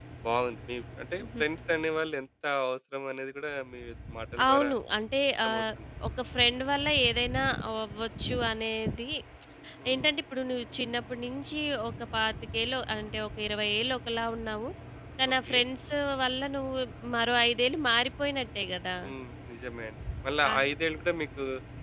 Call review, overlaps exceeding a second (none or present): none